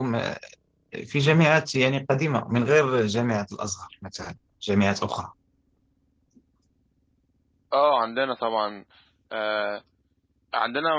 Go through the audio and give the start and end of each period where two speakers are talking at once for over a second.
none

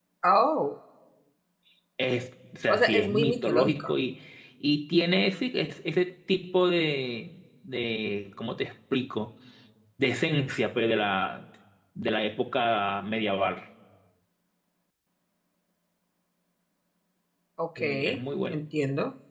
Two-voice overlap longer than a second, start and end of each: 2.7-3.9

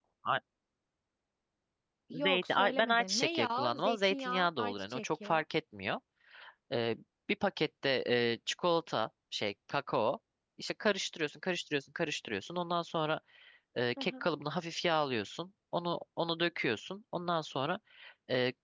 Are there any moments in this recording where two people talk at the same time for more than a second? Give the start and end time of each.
2.1-5.4

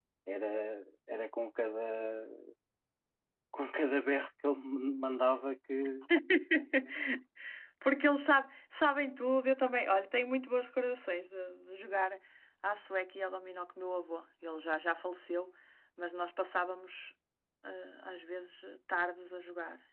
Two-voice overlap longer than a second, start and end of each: none

